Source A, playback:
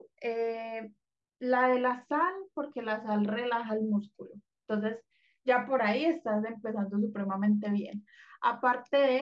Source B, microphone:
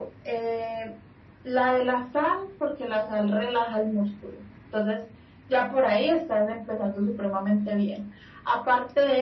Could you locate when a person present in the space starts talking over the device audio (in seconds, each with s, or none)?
none